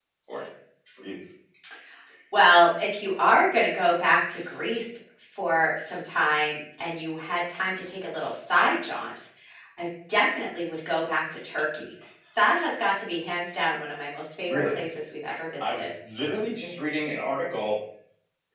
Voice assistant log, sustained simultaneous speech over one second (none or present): none